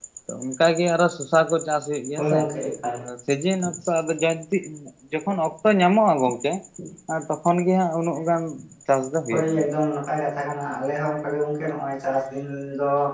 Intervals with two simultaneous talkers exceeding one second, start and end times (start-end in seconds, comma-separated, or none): none